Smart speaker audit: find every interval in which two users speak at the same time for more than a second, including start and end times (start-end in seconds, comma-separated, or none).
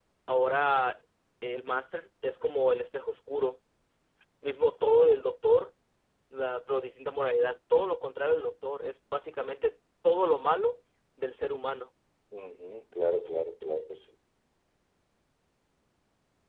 none